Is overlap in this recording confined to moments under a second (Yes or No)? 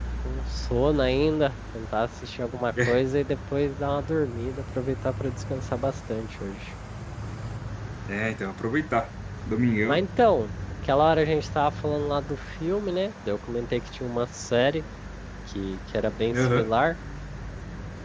Yes